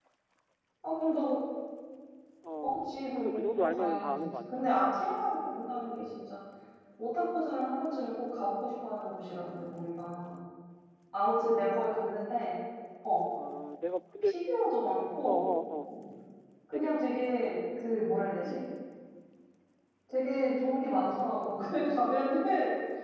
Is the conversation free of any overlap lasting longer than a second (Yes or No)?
No